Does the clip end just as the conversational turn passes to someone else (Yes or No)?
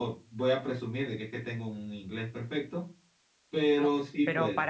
Yes